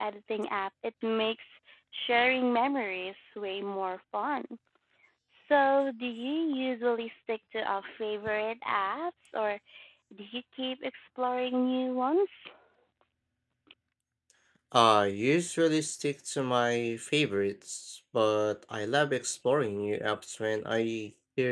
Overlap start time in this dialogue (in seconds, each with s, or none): none